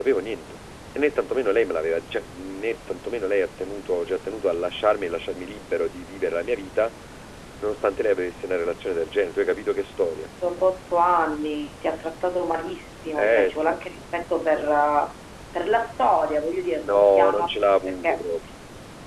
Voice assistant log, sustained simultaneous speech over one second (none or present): present